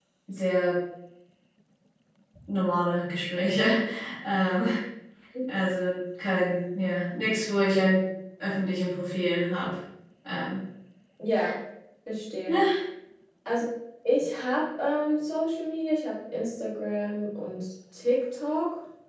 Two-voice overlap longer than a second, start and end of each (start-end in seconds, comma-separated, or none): none